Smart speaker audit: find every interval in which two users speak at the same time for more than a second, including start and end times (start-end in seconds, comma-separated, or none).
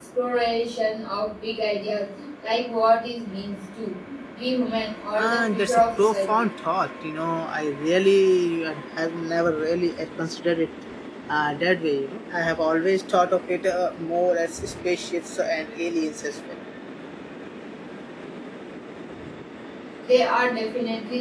5.2-6.5